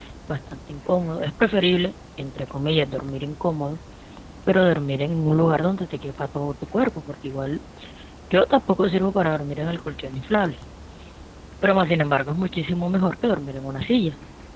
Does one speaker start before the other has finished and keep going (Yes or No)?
No